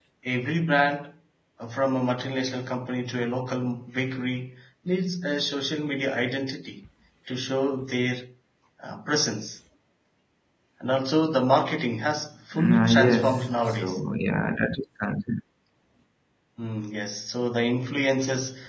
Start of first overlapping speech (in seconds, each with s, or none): 12.5 s